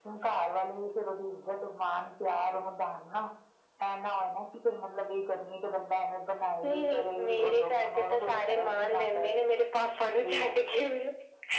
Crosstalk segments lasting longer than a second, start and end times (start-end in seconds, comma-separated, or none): 6.6-9.3